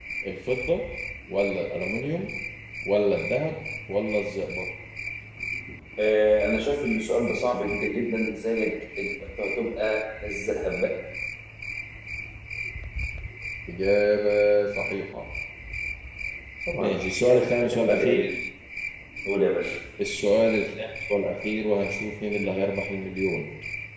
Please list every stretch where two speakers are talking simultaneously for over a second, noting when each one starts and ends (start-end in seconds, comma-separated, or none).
16.8-18.2